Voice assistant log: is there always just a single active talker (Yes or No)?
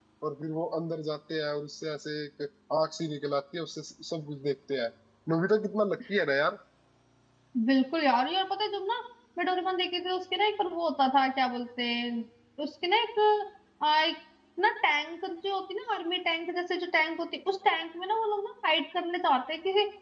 Yes